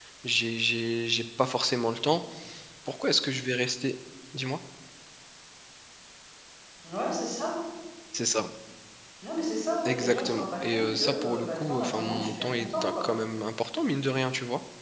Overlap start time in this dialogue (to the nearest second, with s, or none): 10 s